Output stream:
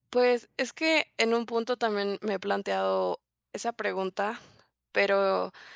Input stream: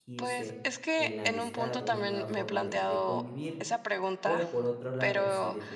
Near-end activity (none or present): present